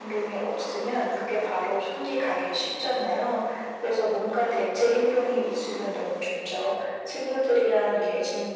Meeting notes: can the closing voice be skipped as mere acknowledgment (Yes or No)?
Yes